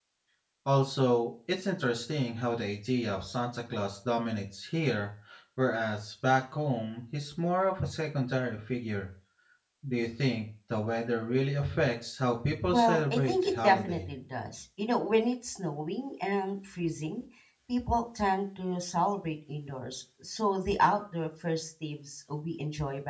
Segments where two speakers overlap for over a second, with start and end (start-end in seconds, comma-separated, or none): 12.7-14.1